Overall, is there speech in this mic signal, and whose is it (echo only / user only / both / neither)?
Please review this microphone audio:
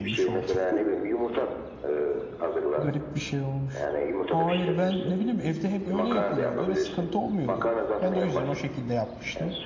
both